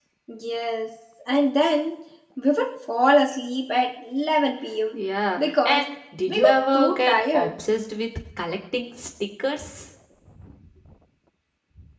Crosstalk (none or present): present